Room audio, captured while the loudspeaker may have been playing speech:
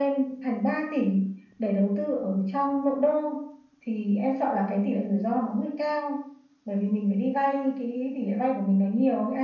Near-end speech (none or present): none